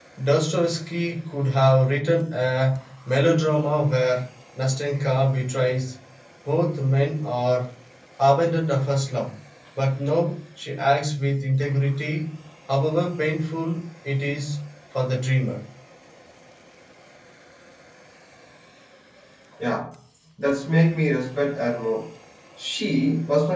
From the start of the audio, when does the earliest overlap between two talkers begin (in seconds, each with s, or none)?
none